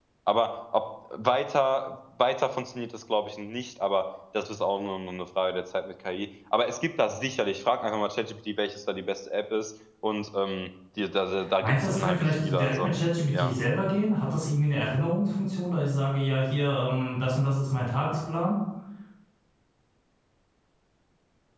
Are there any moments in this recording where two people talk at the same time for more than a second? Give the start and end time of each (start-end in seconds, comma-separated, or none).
11.6-12.9